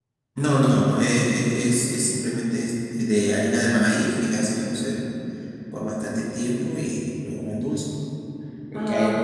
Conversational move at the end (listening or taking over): listening